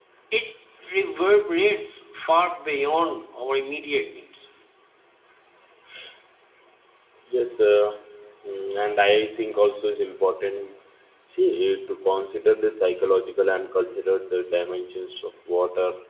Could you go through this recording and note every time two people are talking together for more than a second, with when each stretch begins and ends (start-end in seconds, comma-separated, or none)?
none